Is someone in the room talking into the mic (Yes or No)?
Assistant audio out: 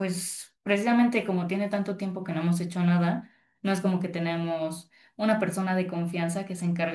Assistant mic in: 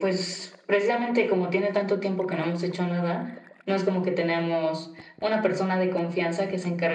No